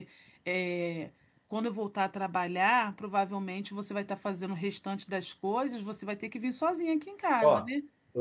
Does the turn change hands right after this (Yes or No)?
Yes